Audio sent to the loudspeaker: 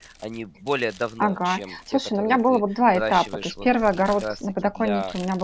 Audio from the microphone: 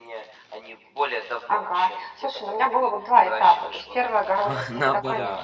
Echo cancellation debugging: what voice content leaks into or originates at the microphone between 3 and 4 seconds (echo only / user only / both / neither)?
echo only